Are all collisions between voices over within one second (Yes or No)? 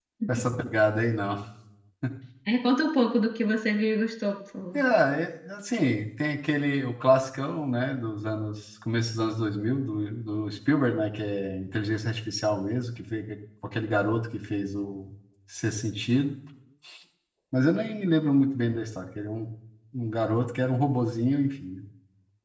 Yes